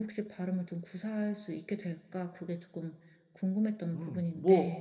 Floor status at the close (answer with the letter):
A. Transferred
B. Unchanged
A